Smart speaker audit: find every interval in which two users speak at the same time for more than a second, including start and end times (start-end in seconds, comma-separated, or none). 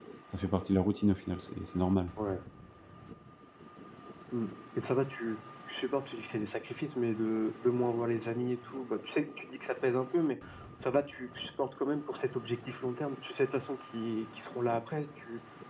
none